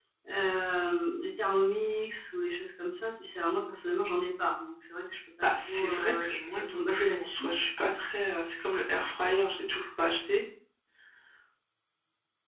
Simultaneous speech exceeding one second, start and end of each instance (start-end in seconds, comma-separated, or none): 5.4-7.5